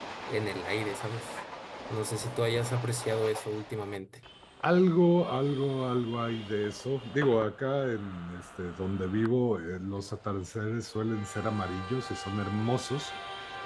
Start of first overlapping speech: none

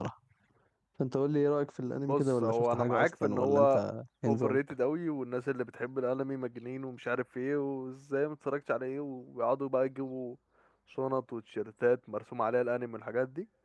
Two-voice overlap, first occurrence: 1.9 s

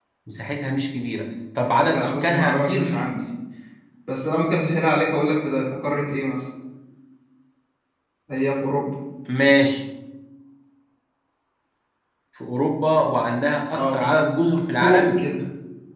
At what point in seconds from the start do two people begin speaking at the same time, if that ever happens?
1.6 s

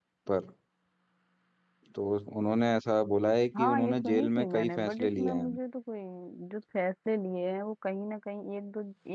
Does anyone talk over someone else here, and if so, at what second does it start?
3.5 s

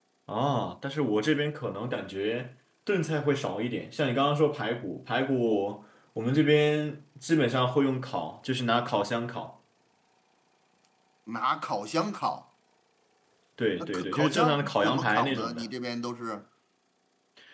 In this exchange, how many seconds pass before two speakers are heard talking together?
13.7 s

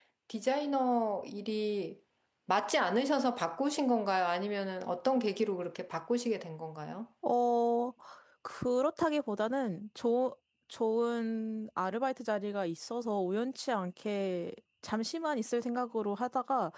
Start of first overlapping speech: none

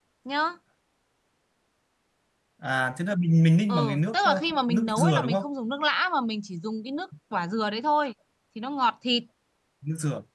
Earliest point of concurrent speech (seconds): 3.7 s

